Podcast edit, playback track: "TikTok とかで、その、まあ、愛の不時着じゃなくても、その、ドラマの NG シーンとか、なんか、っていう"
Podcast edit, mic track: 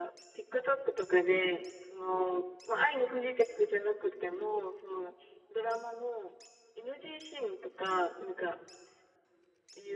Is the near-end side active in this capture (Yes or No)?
No